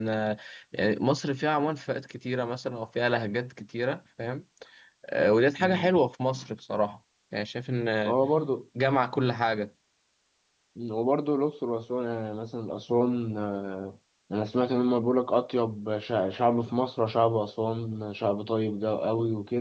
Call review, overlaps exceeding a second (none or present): none